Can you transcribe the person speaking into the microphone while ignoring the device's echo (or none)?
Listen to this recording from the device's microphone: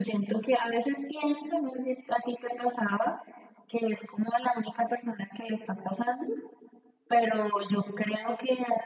none